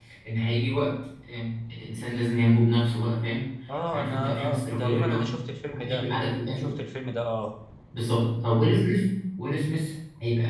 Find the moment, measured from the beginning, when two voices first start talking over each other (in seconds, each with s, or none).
3.9 s